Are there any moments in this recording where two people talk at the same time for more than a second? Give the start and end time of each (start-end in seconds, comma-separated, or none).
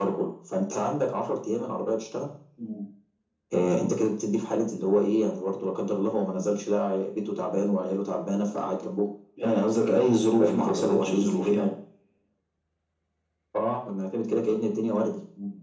10.4-11.7